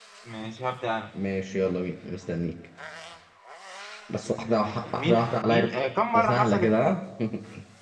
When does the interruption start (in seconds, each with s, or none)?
4.2 s